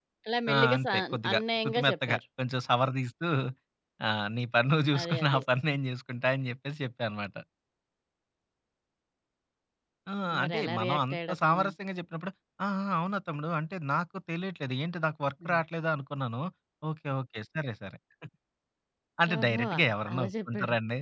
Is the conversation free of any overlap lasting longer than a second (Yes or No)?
No